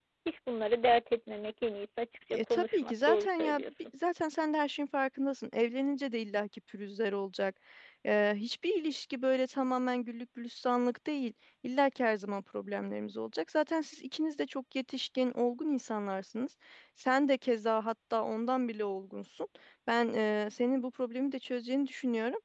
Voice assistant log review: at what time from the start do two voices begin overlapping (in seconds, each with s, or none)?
2.3 s